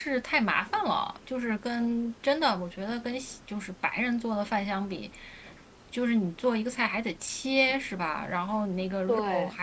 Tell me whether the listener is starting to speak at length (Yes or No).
No